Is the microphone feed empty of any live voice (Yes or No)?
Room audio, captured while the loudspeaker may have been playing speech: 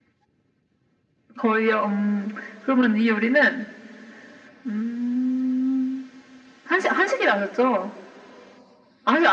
Yes